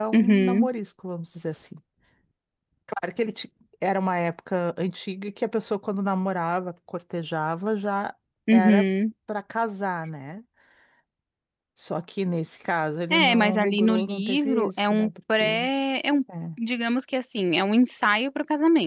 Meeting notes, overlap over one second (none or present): present